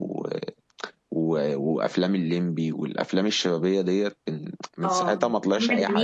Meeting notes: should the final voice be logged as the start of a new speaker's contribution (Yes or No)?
Yes